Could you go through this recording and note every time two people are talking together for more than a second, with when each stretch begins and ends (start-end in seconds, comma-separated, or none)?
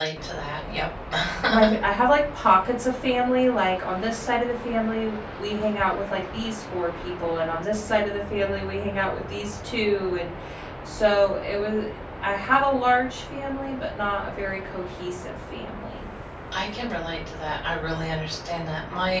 none